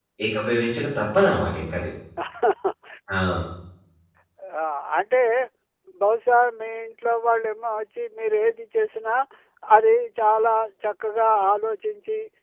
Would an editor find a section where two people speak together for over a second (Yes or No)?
No